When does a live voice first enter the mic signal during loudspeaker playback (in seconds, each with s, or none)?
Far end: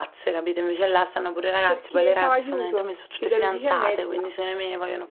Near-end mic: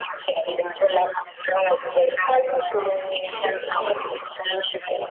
2.8 s